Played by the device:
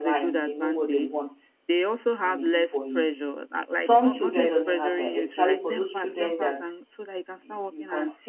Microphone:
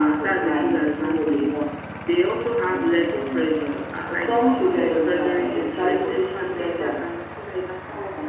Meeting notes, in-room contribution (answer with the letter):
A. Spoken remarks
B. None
B